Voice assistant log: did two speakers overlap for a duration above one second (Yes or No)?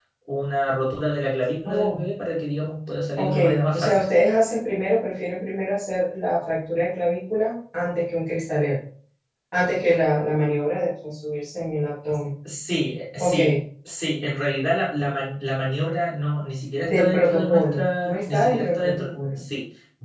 Yes